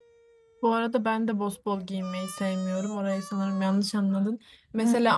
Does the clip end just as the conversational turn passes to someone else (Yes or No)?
No